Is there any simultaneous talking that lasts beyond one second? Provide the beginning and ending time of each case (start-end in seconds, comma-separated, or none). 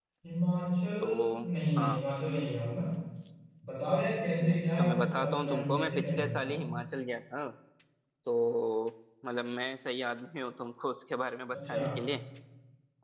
4.5-6.6